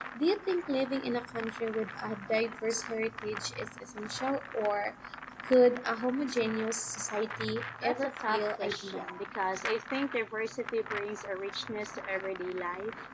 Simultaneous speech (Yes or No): Yes